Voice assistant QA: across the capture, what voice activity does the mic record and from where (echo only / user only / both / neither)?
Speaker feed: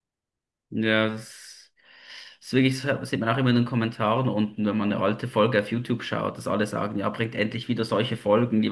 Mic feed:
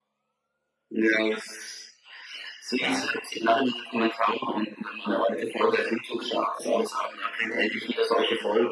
both